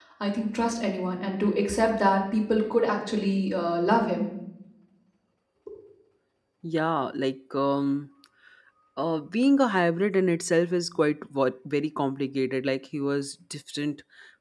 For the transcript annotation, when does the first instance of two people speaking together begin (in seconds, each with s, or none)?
none